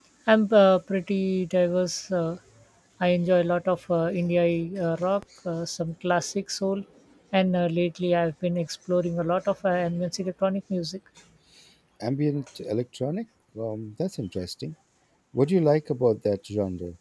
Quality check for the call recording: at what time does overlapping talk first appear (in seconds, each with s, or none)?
none